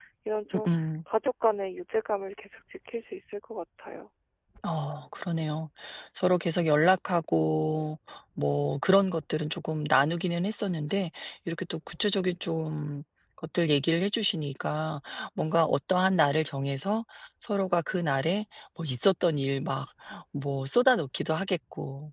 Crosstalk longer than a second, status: none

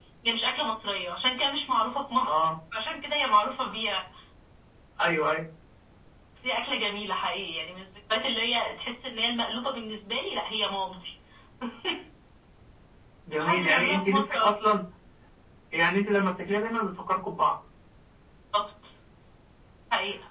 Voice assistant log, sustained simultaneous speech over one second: present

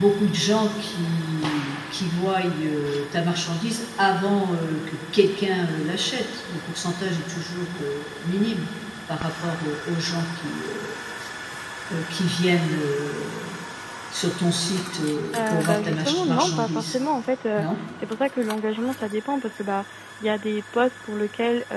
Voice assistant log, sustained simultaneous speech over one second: present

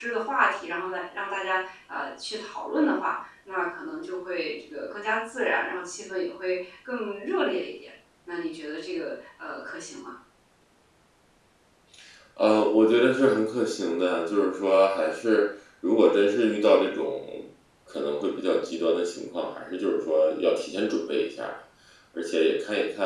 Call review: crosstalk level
none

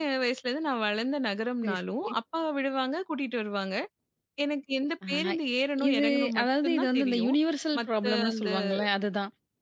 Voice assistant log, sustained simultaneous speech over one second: present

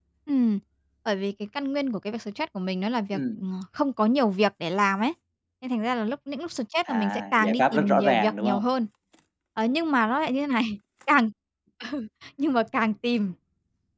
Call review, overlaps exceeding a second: present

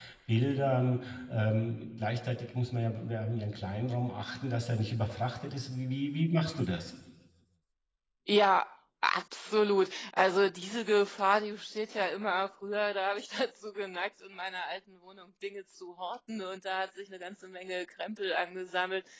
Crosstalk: none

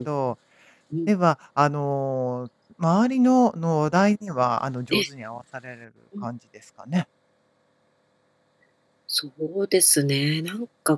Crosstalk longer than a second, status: none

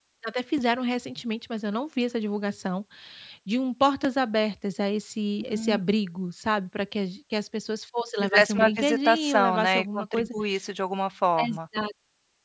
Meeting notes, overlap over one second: present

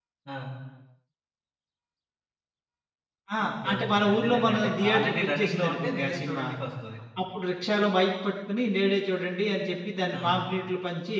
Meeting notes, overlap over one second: present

